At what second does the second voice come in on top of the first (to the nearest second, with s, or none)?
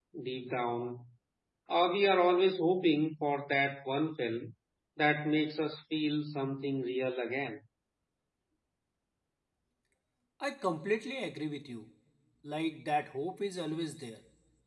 none